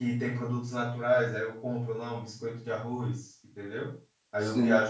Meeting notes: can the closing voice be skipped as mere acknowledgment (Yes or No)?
Yes